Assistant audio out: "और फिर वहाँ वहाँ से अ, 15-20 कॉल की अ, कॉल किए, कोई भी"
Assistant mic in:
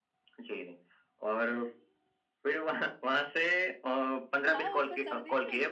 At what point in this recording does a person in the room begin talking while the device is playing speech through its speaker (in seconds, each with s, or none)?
4.4 s